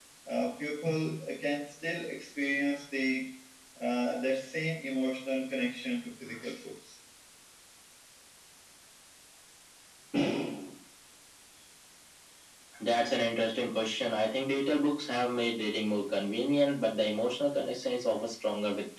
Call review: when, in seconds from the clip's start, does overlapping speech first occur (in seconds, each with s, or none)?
none